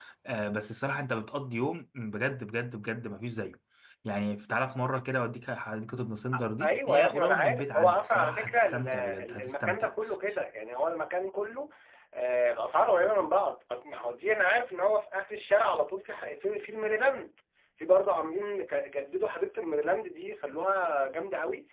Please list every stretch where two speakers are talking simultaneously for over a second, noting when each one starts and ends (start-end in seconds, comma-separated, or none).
6.4-9.9